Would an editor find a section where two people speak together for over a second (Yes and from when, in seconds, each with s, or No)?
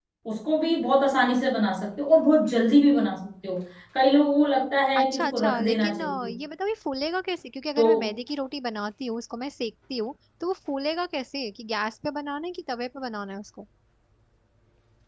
Yes, from 5.0 s